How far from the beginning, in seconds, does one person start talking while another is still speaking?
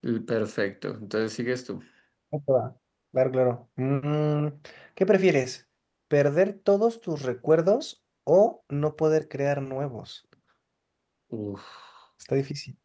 none

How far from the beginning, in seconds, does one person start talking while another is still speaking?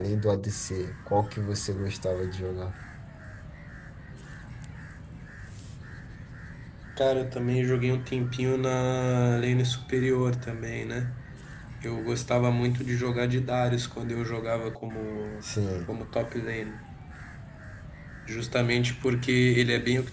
none

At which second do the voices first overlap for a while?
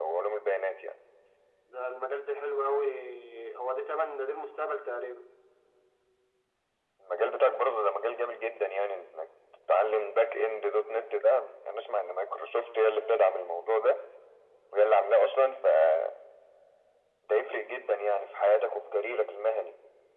none

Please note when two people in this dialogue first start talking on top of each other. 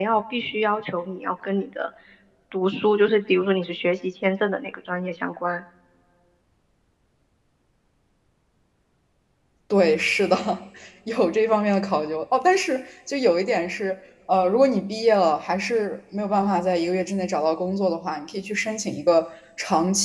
none

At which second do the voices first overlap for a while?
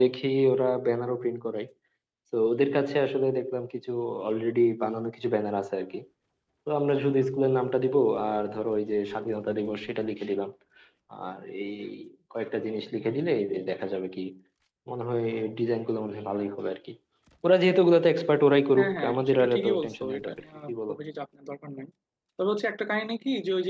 18.8 s

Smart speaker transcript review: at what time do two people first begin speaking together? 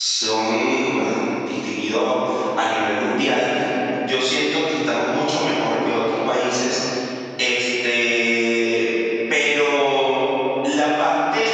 none

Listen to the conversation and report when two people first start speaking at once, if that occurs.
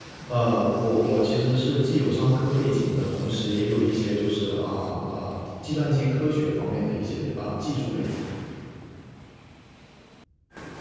none

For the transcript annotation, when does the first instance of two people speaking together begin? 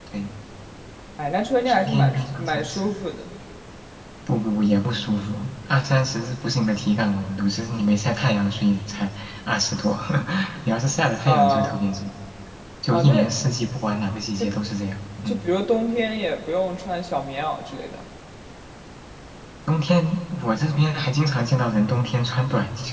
1.7 s

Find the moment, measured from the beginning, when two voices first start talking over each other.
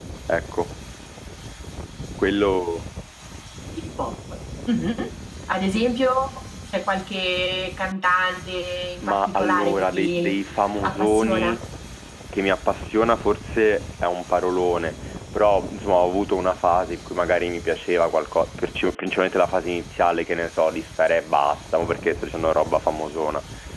9.0 s

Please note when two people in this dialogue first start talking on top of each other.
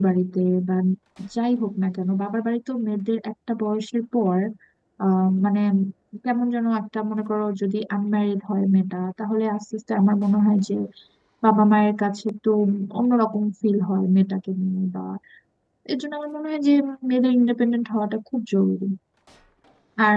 none

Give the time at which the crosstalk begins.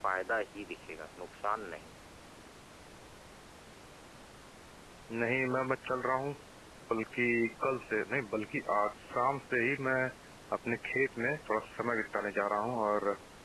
none

